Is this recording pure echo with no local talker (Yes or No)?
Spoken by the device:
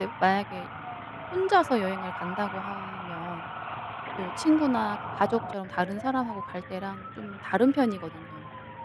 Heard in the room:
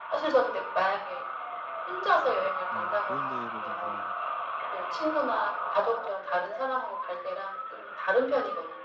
No